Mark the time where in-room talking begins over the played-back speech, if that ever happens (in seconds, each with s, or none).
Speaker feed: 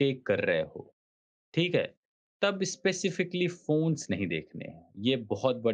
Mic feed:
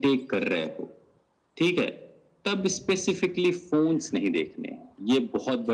none